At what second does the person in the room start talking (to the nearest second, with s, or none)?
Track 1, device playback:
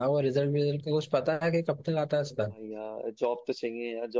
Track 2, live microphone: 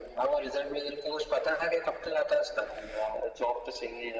none